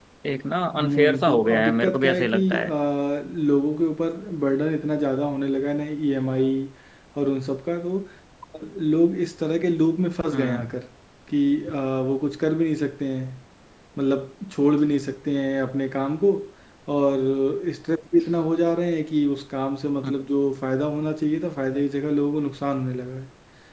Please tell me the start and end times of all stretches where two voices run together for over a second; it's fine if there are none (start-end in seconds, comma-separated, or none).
0.7-2.7